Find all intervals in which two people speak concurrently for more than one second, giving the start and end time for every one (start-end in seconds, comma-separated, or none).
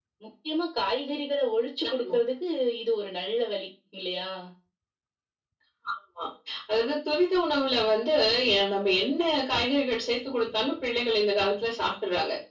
none